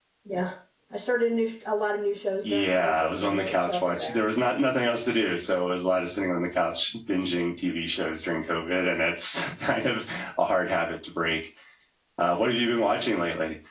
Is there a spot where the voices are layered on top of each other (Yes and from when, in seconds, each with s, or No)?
Yes, from 2.4 s